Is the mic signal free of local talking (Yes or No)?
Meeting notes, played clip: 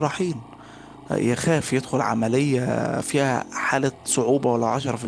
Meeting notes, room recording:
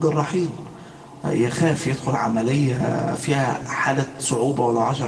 Yes